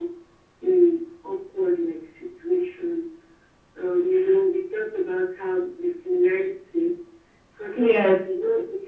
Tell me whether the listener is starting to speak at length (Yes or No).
No